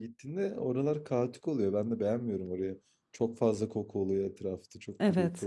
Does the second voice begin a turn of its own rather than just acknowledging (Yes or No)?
Yes